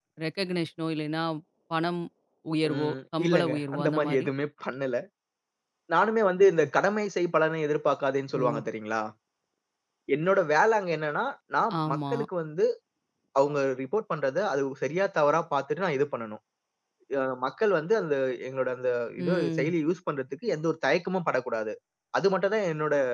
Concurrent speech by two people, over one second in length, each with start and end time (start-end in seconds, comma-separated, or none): 2.7-4.2